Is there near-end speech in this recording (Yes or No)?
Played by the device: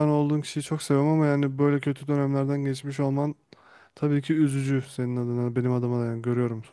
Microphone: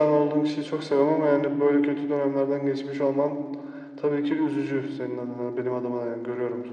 No